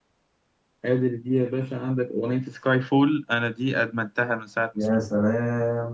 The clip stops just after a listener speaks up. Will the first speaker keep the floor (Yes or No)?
No